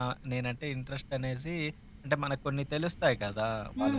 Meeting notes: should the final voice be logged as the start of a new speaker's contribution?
Yes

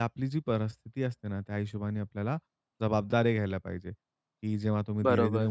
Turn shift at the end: No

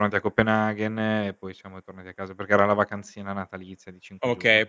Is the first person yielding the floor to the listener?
Yes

